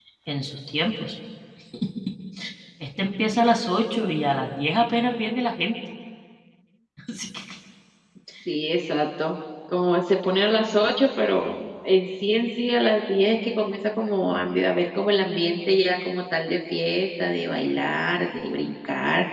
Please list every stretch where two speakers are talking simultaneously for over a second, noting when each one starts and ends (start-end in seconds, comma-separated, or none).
none